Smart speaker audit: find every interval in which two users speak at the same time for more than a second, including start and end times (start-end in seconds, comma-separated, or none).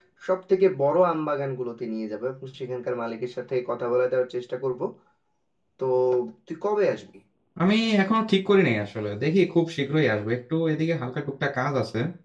none